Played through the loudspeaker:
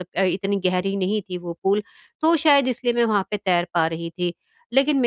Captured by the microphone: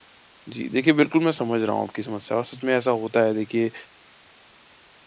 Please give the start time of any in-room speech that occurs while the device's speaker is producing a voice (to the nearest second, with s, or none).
0 s